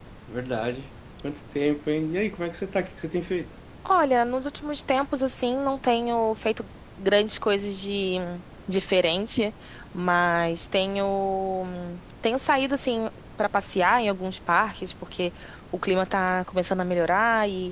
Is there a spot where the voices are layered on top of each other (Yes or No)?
No